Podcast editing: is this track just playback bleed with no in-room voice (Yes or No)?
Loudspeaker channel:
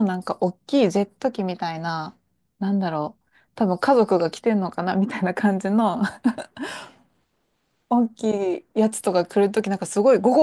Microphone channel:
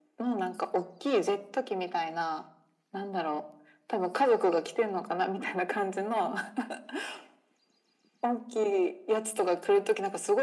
Yes